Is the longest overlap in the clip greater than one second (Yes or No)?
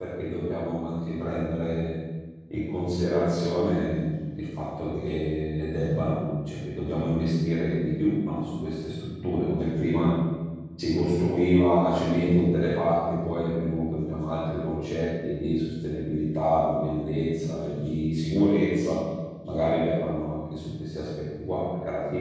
No